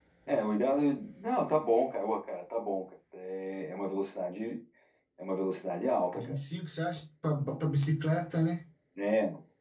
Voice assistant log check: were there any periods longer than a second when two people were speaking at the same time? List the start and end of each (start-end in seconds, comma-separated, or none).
none